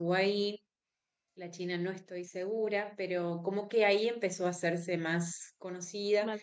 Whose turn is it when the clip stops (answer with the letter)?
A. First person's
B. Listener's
A